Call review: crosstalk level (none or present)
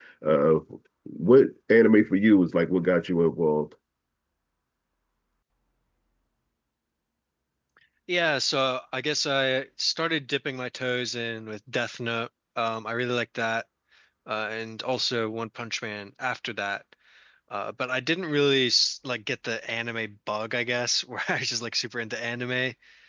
none